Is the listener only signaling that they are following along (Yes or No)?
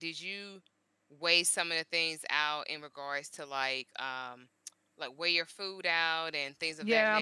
No